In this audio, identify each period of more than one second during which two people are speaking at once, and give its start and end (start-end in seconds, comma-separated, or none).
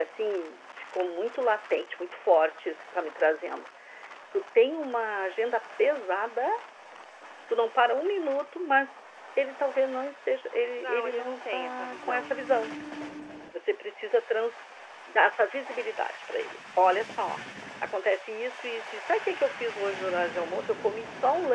10.8-12.4